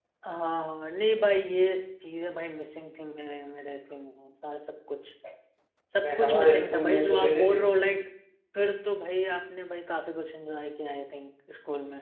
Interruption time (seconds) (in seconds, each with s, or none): 6.0 s